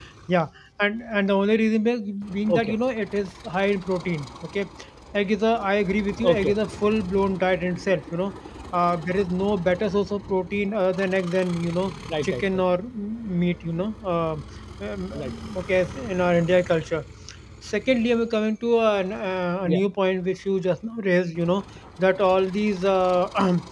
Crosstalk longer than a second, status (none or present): none